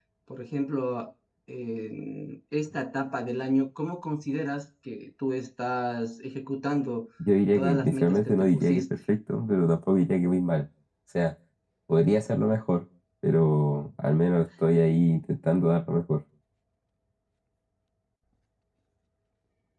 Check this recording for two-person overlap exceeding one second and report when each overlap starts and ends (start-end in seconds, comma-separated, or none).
7.5-8.9